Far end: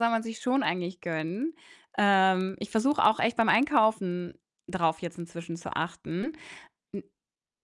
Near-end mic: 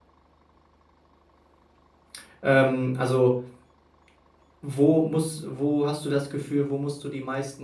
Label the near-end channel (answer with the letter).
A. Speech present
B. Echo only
A